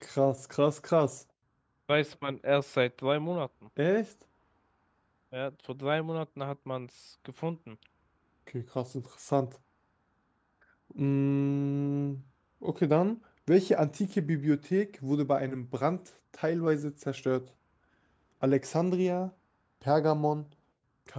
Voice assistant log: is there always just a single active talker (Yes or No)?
Yes